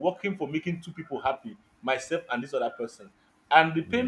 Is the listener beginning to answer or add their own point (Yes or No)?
No